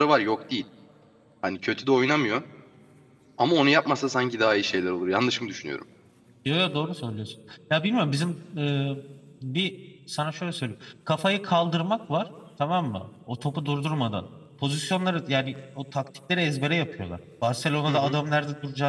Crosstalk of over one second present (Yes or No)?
No